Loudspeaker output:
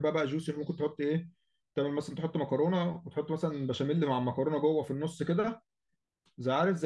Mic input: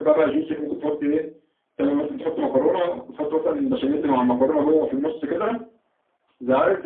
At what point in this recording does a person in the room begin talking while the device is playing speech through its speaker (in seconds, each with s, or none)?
none